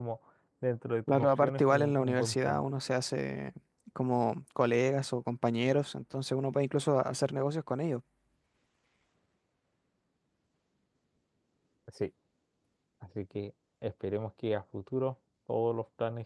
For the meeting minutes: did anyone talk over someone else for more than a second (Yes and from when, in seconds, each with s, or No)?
Yes, from 1.1 s